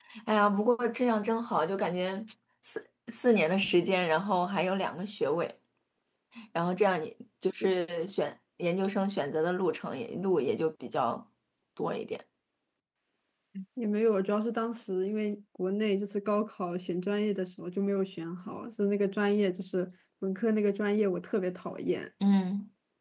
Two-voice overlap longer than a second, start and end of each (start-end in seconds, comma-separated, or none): none